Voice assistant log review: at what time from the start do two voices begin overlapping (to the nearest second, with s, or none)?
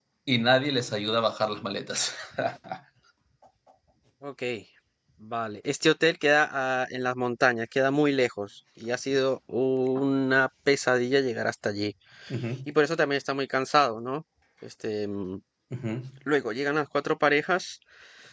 none